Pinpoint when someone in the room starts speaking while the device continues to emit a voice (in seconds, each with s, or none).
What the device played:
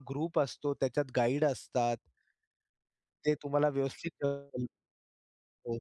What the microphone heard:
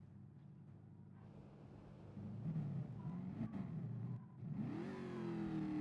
none